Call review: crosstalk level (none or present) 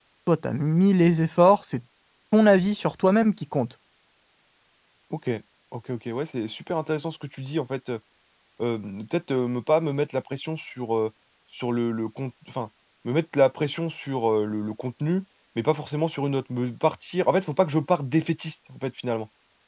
none